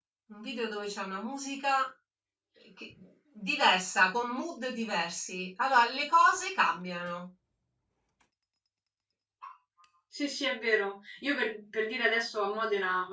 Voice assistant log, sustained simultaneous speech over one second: none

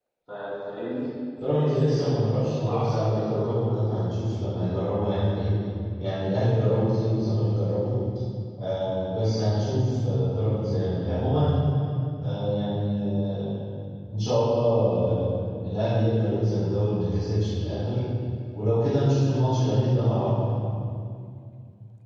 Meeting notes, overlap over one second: present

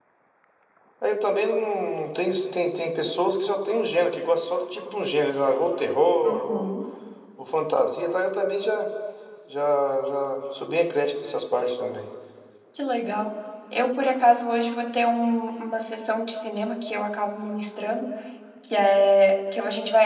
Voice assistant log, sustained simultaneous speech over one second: none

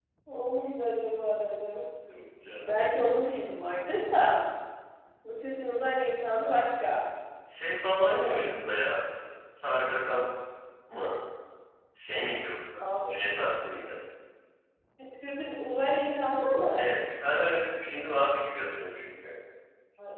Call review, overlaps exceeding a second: none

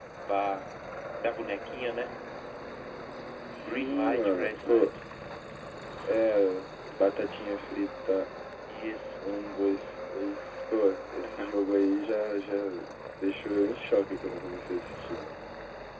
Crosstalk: present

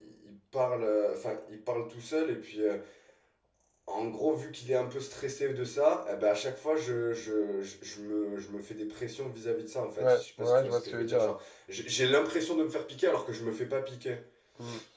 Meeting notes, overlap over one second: present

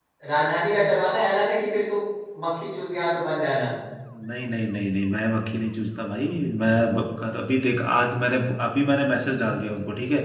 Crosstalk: none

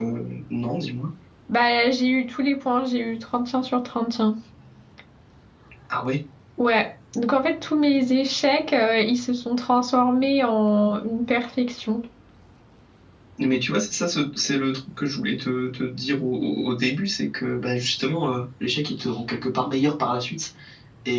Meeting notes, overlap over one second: none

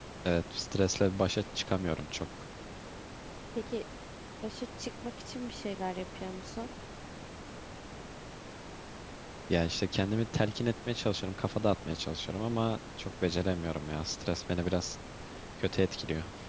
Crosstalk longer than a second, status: none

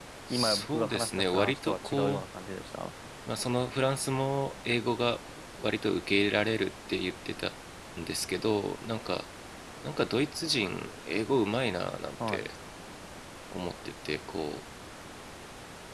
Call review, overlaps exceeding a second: present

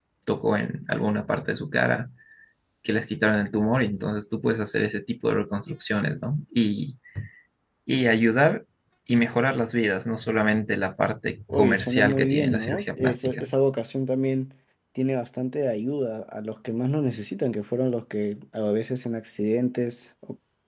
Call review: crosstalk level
present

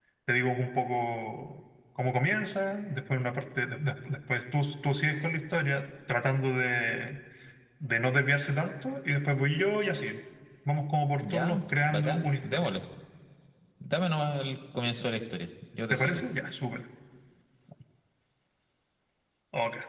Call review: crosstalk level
present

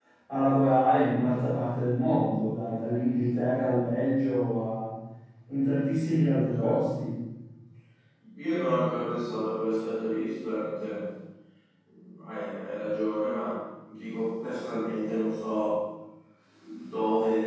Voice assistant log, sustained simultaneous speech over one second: none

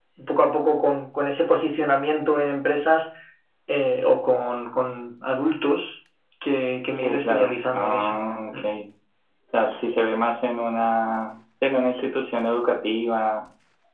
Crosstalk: present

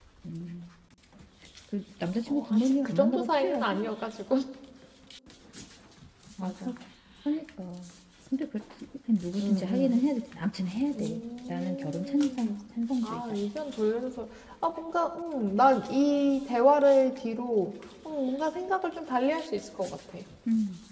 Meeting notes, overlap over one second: present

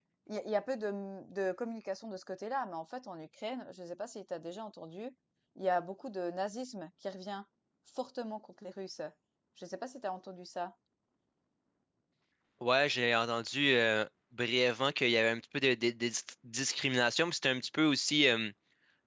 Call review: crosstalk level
none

